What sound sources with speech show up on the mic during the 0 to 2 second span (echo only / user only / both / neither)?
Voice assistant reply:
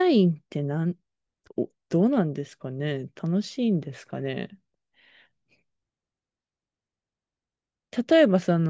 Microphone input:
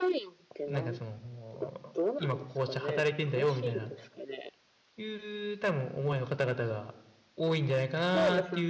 both